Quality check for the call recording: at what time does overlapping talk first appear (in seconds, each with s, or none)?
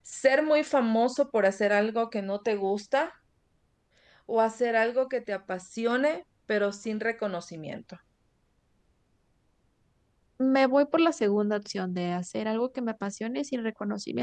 none